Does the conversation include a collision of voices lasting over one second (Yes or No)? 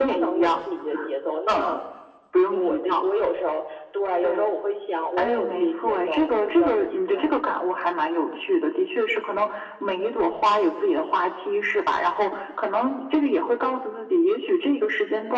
Yes